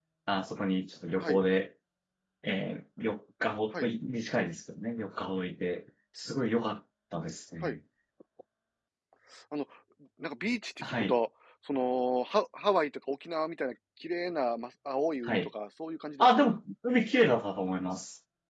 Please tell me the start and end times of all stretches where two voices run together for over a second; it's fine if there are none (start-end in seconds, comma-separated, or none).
none